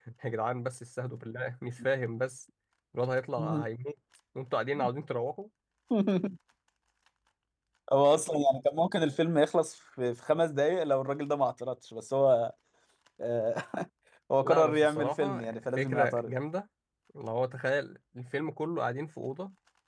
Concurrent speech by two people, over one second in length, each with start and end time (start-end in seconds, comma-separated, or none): 14.4-16.3